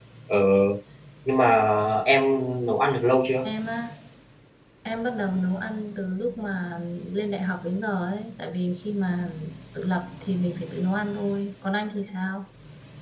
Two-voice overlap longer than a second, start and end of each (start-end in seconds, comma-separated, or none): none